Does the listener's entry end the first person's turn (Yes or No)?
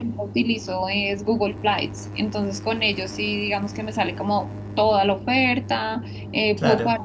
No